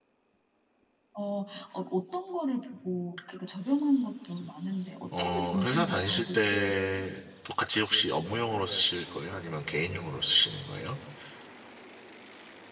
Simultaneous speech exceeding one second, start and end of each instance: 5.2-7.1

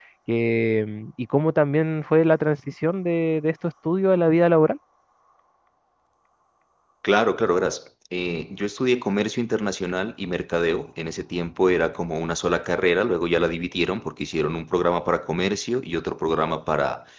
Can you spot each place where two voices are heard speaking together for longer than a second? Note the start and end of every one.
none

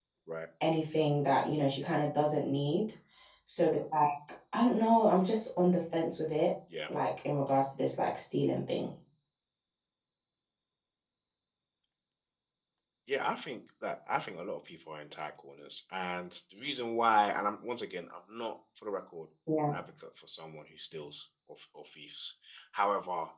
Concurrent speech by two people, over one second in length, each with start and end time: none

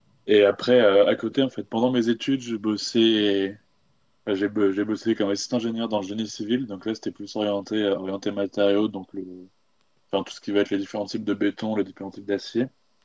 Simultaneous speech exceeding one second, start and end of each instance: none

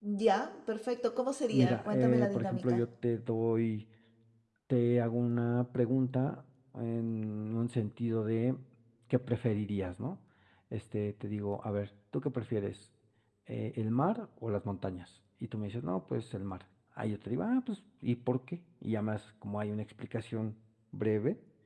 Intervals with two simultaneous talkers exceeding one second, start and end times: 1.5-2.8

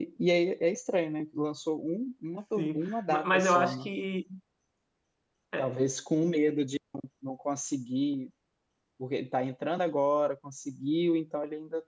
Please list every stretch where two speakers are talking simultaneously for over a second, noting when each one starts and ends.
2.6-3.9

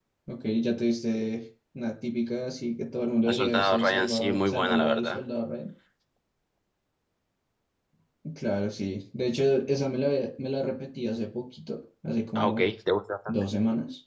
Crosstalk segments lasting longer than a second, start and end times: 3.3-5.2

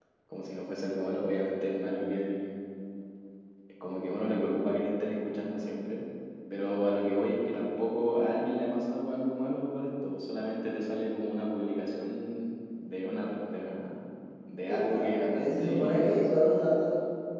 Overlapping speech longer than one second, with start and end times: 14.7-16.2

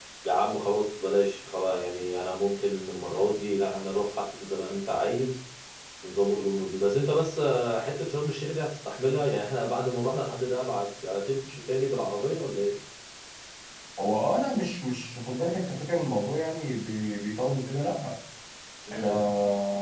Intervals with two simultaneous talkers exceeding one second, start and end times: none

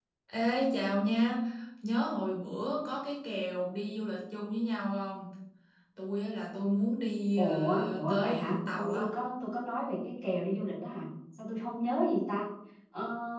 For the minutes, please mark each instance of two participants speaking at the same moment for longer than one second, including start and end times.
7.4-9.1

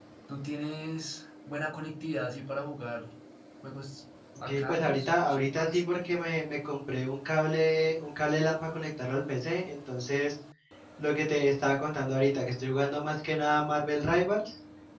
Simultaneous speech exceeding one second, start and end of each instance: 4.4-5.8

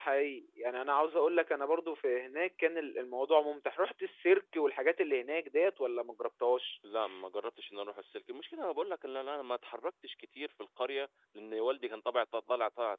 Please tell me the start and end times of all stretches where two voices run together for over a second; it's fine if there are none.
none

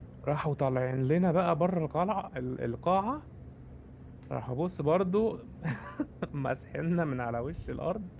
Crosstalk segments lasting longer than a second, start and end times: none

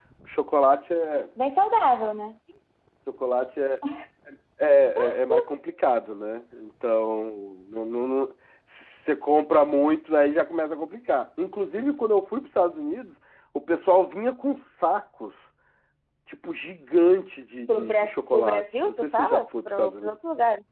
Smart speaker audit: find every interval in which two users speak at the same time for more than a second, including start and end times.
17.7-20.1

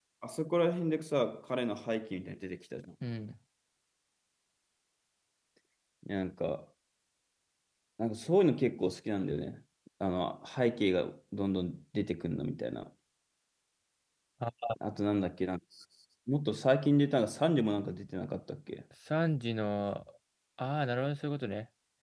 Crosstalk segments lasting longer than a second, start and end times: none

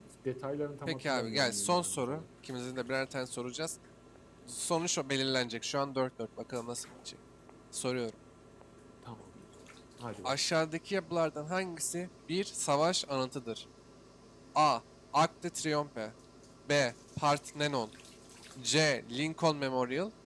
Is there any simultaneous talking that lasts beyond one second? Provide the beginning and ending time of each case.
0.9-2.2

